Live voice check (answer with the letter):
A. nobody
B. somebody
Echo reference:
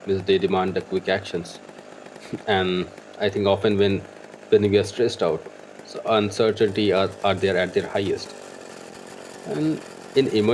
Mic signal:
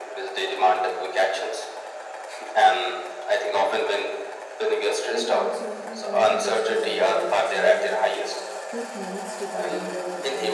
B